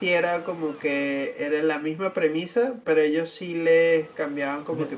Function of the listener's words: listening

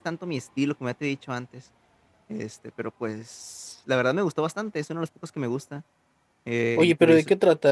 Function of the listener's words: taking over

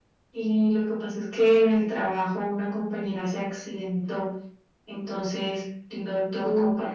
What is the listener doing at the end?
listening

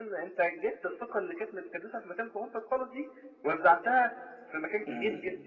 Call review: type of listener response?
taking over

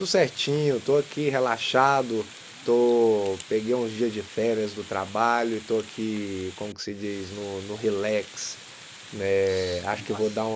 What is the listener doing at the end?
listening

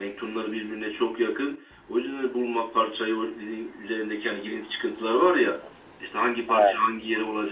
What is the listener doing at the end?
listening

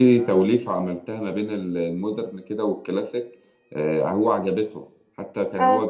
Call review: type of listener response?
listening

